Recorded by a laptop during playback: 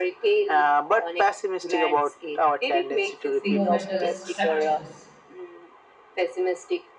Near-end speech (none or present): present